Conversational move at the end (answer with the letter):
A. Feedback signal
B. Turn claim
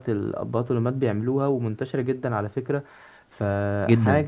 A